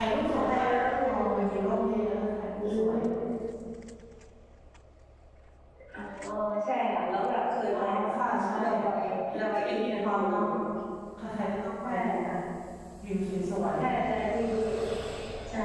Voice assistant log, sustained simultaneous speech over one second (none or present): present